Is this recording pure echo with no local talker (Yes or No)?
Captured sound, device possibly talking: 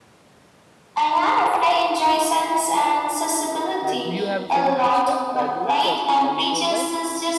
No